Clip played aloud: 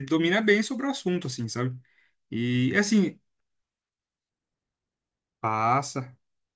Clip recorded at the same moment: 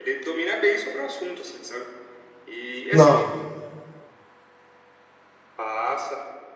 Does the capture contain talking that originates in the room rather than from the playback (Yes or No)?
Yes